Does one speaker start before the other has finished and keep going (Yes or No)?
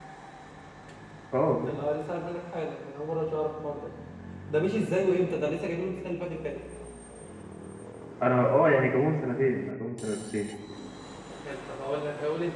No